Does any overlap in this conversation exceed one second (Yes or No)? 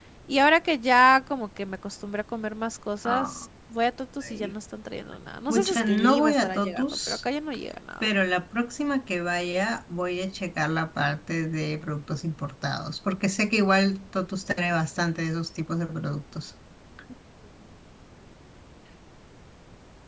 Yes